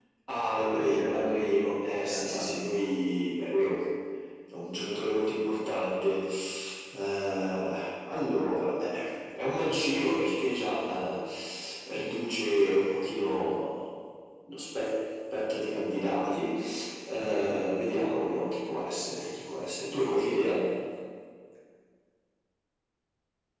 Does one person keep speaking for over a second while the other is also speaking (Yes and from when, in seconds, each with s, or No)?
Yes, from 0.6 s